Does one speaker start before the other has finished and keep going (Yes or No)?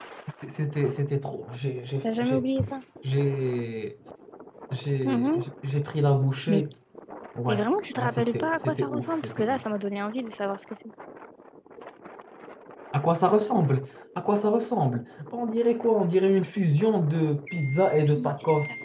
Yes